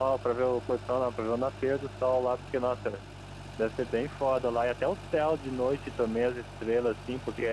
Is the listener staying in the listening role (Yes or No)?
No